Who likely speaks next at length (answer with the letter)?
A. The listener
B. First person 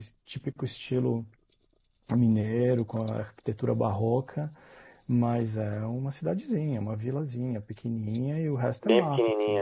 B